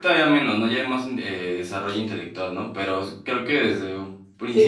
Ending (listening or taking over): taking over